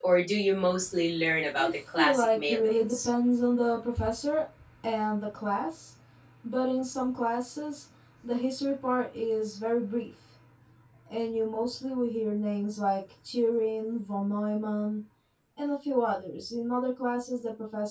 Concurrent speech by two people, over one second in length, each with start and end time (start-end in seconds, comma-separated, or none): 1.5-3.1